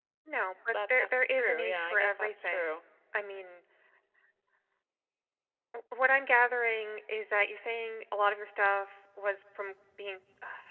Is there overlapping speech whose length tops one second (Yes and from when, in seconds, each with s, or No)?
Yes, from 0.7 s